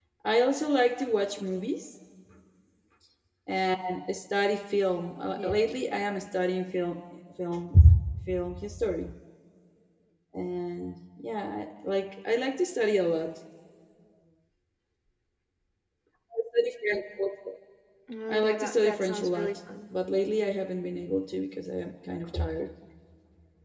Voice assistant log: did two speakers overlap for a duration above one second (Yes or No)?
Yes